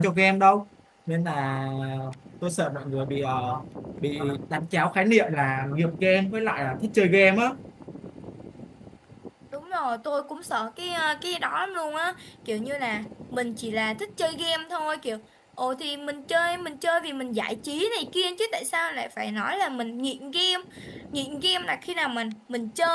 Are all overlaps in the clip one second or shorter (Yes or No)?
Yes